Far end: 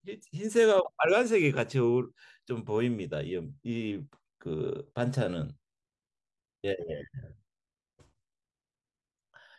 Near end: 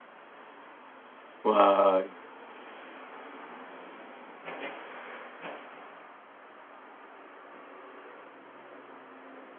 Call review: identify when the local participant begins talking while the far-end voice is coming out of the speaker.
1.4 s

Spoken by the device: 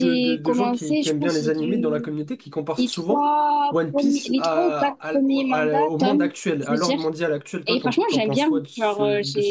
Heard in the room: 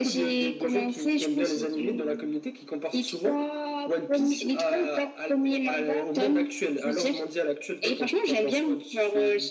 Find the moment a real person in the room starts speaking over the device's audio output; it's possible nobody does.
none

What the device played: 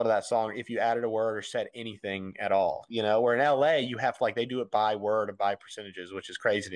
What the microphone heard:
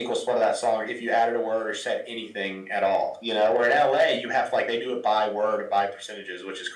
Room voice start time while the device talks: none

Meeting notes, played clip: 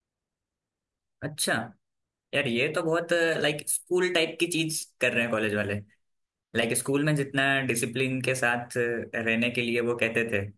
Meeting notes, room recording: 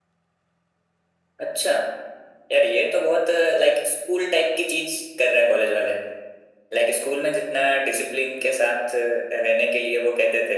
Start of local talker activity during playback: none

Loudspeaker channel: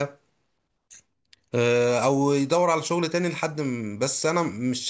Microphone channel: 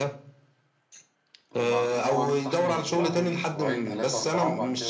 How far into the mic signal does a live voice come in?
1.5 s

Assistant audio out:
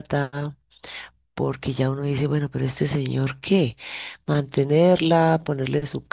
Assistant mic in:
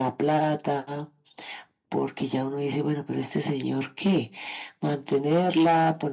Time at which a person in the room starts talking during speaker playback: none

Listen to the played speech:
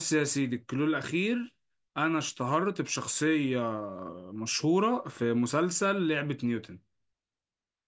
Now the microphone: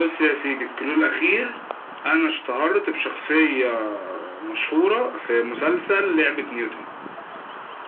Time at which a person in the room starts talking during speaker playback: none

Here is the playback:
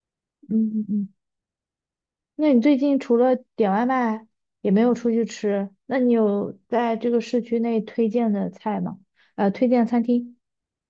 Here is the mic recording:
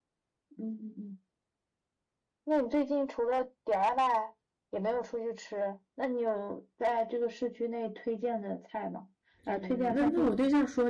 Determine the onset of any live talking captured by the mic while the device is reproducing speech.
9.5 s

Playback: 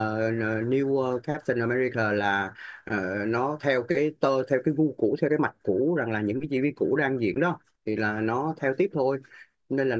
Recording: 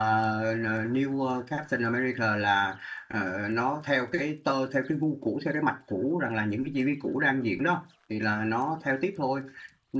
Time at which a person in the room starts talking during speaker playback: none

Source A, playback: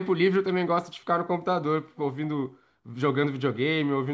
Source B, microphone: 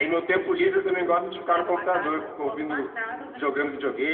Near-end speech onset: 0.9 s

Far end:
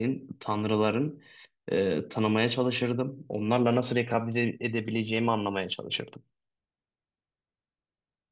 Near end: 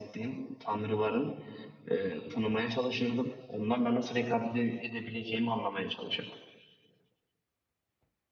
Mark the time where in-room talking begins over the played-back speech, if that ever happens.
none

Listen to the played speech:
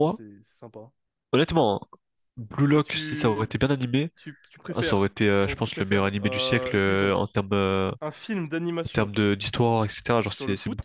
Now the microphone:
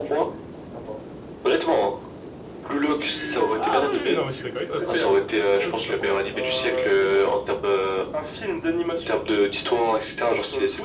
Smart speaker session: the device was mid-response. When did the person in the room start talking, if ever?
3.5 s

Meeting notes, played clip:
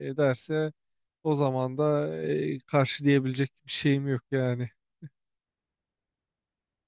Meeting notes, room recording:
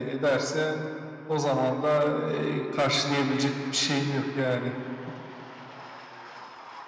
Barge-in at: none

